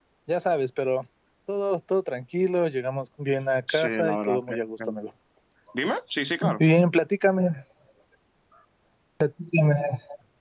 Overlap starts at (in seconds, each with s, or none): 3.7 s